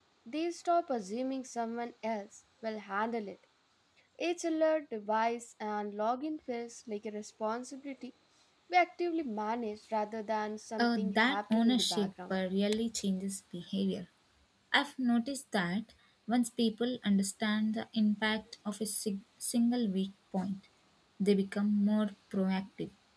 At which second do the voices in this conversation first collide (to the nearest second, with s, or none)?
11 s